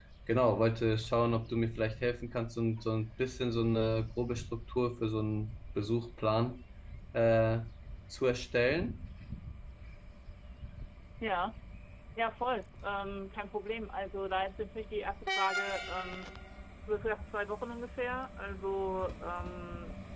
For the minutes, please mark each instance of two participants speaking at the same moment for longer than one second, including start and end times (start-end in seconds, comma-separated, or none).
none